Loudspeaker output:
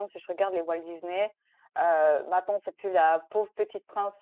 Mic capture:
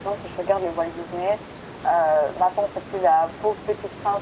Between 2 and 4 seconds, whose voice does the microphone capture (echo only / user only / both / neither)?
echo only